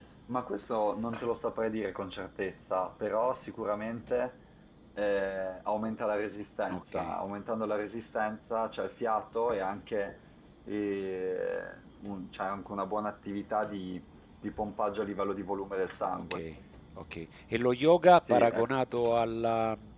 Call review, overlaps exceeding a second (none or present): none